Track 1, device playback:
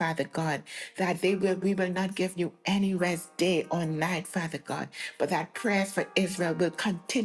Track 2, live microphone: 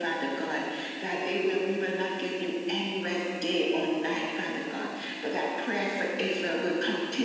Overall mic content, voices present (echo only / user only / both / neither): both